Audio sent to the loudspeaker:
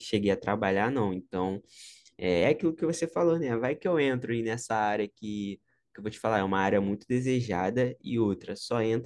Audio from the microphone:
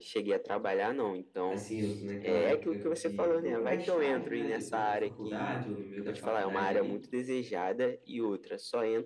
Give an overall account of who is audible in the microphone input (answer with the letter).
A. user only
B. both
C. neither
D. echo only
B